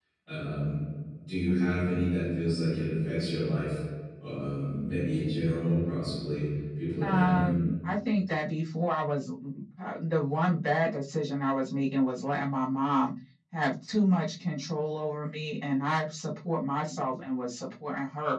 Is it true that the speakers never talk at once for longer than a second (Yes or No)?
Yes